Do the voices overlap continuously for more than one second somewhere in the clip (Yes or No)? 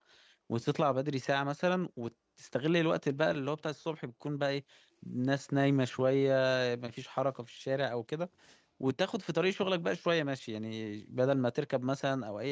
No